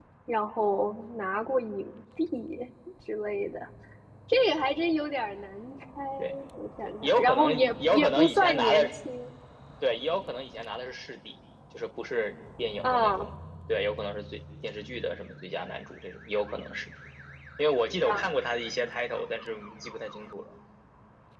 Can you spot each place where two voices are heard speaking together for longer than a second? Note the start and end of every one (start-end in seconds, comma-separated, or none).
7.0-8.9